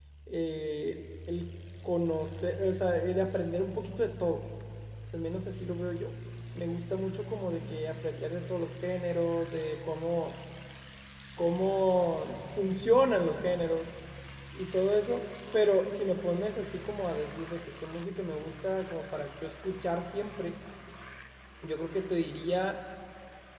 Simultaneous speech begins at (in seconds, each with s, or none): none